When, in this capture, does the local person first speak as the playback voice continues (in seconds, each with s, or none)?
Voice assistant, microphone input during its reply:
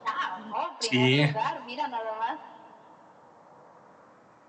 0.8 s